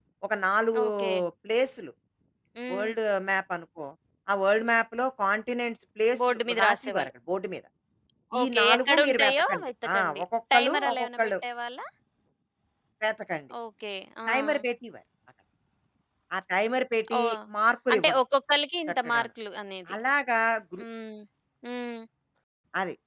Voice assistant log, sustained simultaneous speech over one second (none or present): present